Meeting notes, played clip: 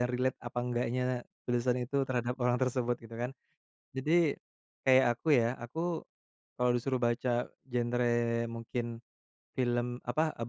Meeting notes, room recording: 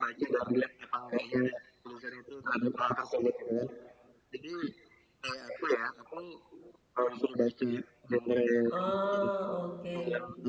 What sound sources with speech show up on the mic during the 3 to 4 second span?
echo only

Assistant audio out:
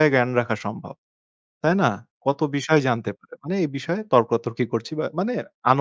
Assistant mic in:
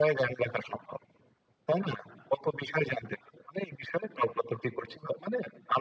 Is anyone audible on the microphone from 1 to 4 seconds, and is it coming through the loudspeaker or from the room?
echo only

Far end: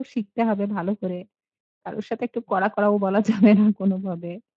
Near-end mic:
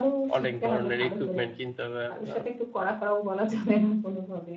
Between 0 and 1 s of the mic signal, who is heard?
both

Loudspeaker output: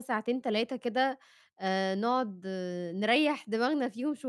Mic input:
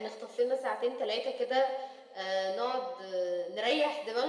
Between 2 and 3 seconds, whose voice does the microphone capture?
echo only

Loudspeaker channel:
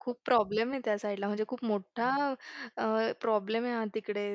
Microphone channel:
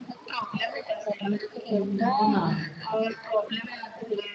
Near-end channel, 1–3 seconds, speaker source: both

